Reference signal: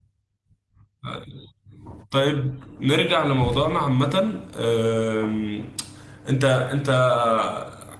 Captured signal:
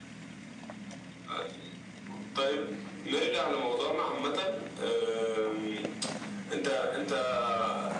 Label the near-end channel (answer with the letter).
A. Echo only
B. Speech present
A